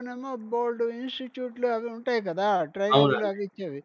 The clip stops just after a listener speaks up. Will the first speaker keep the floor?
Yes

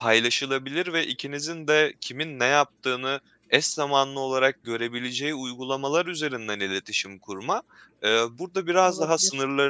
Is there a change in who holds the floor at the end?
No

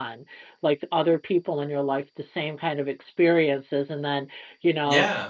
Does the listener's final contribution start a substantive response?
No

